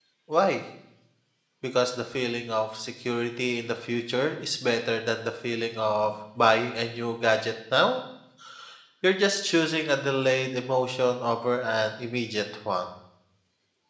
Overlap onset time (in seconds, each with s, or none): none